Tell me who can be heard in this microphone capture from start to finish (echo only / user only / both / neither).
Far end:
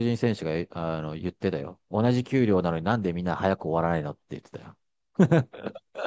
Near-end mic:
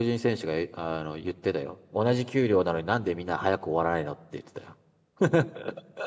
echo only